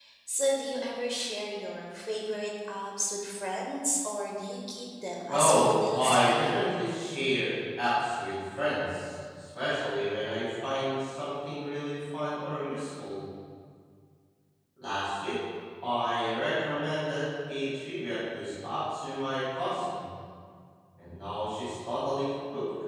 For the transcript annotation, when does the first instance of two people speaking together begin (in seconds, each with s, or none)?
5.3 s